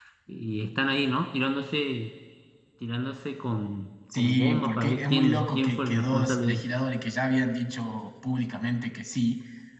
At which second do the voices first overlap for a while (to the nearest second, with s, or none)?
4 s